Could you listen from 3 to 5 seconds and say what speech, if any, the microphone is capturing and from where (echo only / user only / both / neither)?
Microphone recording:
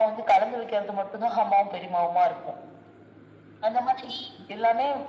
echo only